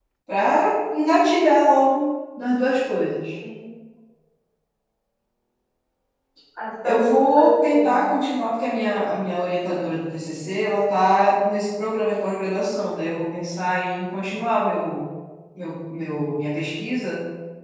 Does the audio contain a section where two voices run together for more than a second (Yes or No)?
Yes